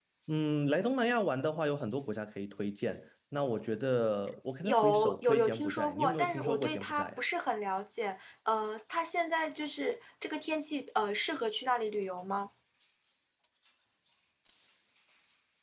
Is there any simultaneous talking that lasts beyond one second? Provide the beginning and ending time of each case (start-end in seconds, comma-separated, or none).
4.6-7.2